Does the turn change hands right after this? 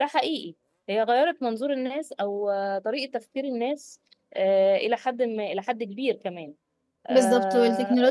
Yes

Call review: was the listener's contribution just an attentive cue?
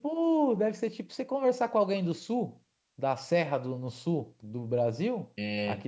Yes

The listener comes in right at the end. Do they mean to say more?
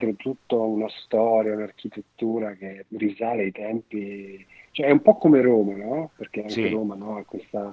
No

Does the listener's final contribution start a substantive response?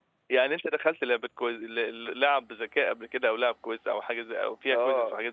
Yes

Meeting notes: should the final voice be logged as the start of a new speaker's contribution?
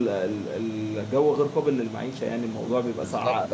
Yes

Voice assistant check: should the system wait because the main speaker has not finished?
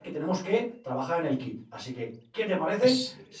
Yes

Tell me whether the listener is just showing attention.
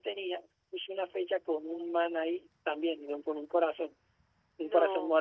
Yes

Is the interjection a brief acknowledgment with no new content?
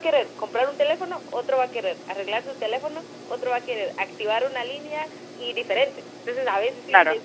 Yes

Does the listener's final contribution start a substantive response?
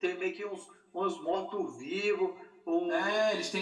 Yes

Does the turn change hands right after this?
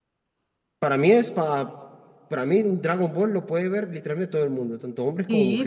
Yes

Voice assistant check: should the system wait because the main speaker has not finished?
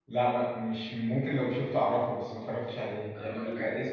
No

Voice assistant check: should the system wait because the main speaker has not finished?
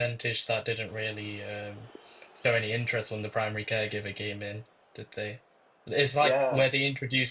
Yes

